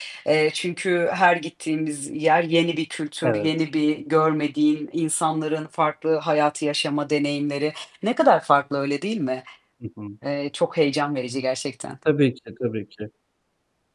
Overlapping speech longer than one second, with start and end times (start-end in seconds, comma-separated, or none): none